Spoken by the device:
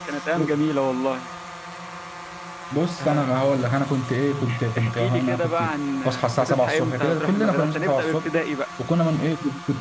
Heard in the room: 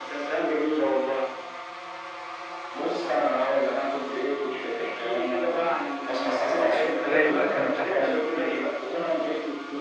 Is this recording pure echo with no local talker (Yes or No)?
No